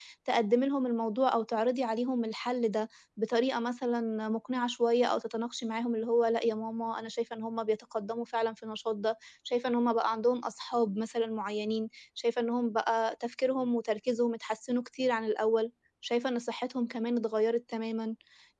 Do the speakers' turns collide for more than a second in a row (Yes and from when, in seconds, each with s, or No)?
No